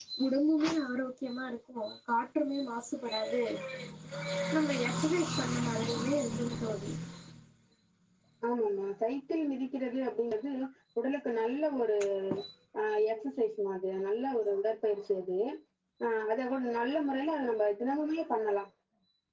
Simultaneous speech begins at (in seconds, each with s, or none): none